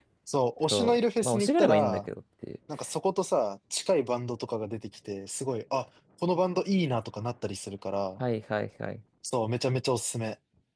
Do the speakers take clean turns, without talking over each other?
No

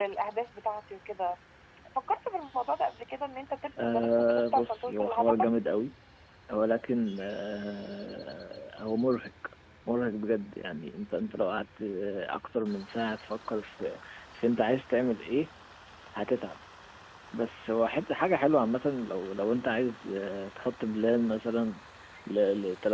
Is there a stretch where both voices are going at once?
Yes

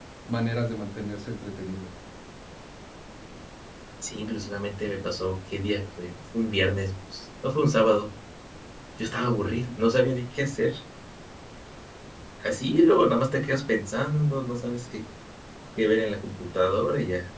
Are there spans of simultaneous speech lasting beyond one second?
No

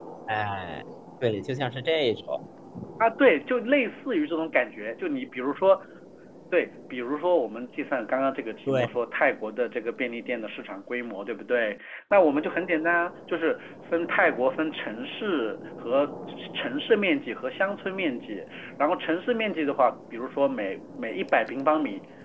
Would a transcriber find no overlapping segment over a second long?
Yes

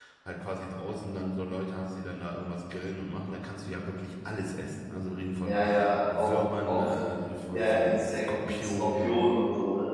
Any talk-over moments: Yes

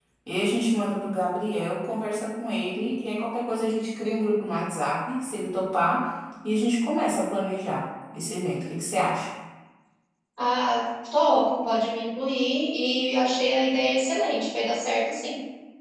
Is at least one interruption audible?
No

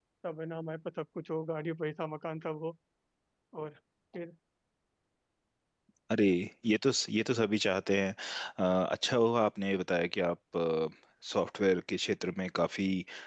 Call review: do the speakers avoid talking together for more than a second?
Yes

